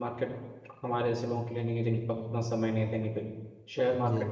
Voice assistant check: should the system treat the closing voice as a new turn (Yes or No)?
No